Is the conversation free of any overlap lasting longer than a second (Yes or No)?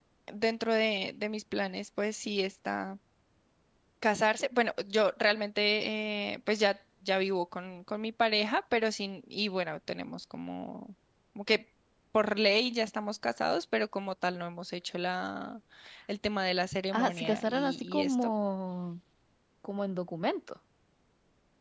No